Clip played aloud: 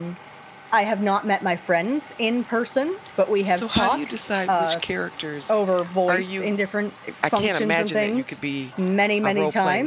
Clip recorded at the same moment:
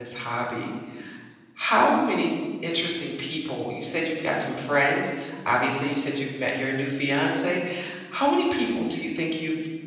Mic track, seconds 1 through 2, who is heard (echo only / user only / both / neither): user only